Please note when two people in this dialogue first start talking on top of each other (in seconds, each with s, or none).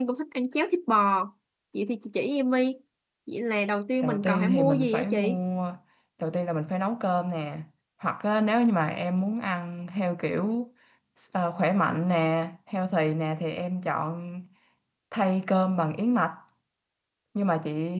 4.0 s